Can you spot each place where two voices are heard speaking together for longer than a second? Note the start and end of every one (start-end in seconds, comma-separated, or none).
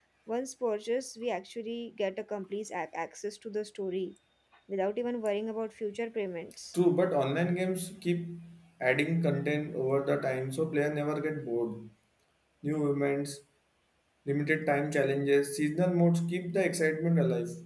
none